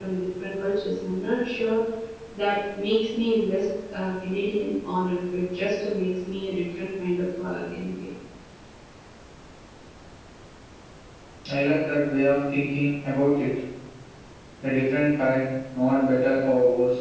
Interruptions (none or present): none